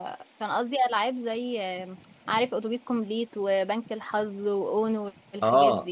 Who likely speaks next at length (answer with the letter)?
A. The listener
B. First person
A